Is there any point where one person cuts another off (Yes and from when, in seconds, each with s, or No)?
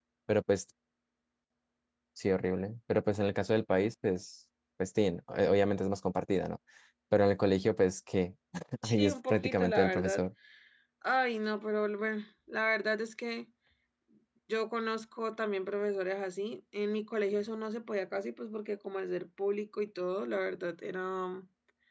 Yes, from 8.8 s